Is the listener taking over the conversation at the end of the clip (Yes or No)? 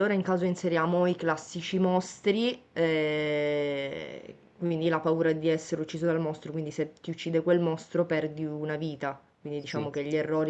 No